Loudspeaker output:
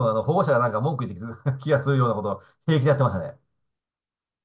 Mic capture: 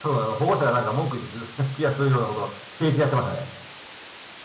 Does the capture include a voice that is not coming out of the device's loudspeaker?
No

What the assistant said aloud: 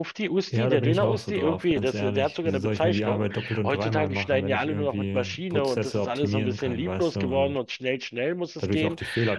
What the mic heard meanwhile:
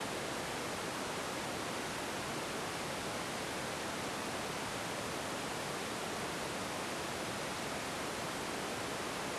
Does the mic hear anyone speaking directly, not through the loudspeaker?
No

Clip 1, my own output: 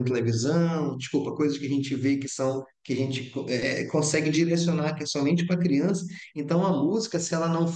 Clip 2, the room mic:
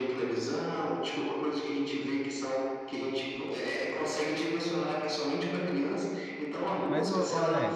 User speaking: Yes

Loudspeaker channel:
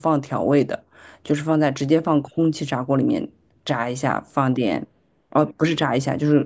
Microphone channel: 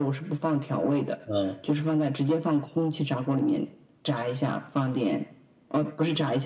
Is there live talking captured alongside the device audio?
Yes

